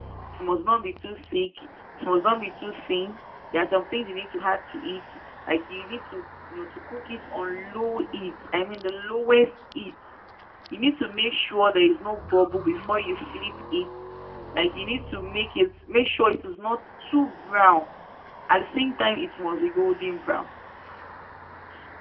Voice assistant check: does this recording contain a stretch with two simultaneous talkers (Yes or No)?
No